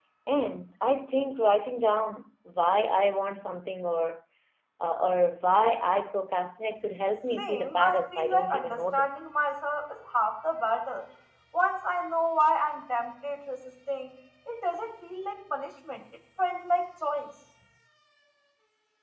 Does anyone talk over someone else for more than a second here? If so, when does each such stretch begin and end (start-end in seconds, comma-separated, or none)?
7.4-9.2